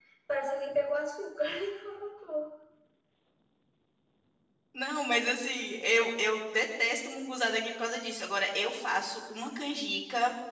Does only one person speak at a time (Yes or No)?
Yes